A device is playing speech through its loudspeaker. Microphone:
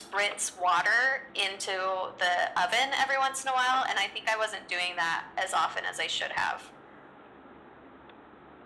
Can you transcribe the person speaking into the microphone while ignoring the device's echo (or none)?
none